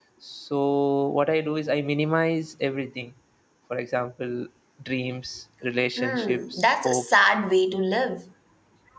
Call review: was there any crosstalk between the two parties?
Yes, from 6.0 s

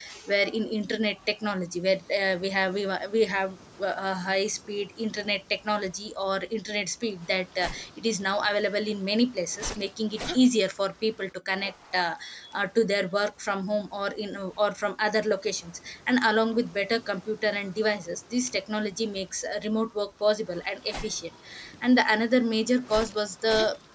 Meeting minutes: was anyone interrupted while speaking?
No

